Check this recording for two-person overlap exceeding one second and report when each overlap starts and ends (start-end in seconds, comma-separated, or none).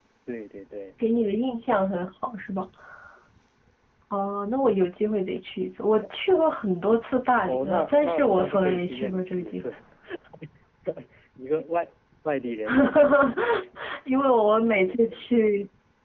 7.5-9.6